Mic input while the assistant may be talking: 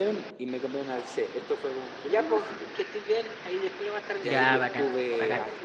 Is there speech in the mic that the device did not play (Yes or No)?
Yes